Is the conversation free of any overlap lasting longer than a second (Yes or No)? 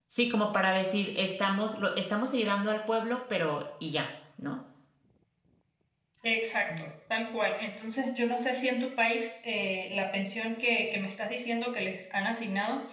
Yes